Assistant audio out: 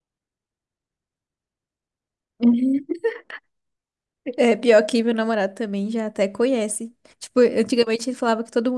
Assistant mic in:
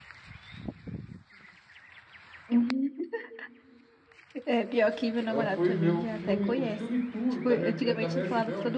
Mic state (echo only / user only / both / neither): both